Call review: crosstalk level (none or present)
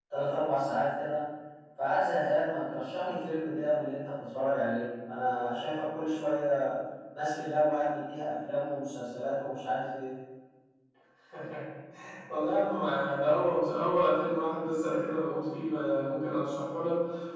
none